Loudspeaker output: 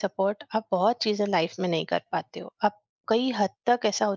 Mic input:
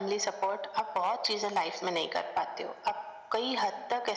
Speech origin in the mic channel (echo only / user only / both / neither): echo only